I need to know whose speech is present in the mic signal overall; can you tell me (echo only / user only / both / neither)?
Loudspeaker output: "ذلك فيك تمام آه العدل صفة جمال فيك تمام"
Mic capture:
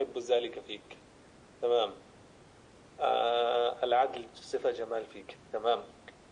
echo only